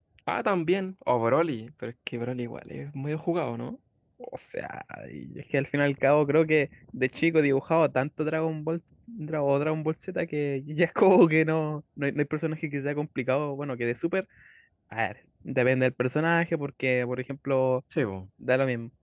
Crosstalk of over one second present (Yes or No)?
No